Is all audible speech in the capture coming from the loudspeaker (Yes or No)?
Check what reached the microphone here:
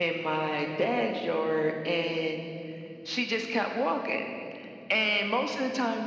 Yes